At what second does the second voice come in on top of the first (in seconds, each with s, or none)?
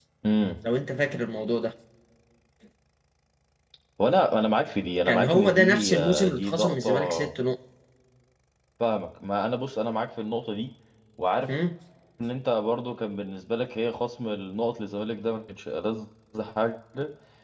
5.0 s